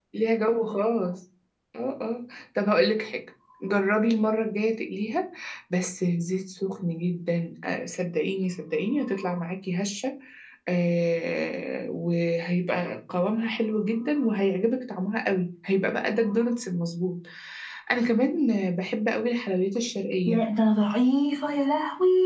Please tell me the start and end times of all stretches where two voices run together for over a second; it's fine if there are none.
none

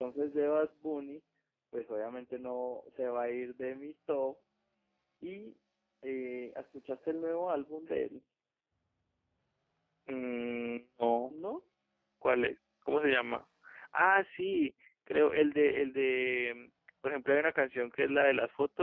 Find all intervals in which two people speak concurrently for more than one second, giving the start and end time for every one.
none

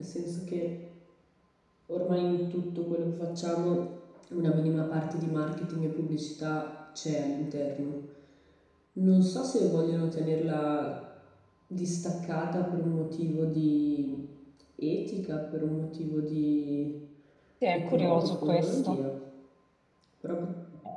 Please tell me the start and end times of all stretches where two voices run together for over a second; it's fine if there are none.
17.7-19.0

